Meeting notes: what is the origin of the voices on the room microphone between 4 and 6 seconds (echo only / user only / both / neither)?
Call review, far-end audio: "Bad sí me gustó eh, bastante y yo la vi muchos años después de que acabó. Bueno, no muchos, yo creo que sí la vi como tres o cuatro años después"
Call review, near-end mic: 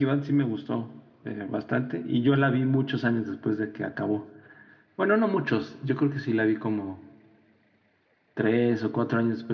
echo only